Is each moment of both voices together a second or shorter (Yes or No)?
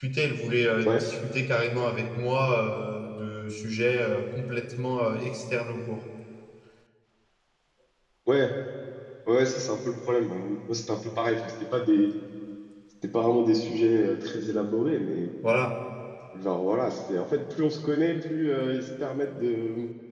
Yes